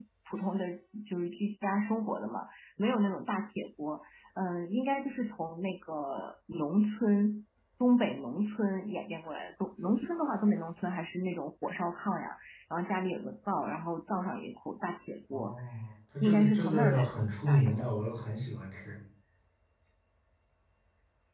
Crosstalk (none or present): present